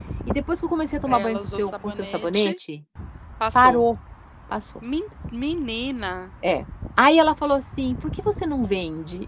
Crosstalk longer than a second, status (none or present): present